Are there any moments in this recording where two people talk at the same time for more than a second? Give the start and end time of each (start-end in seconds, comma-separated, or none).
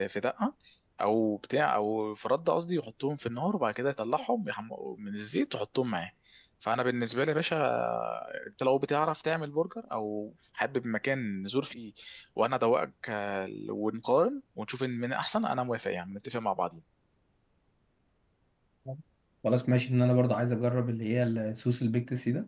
none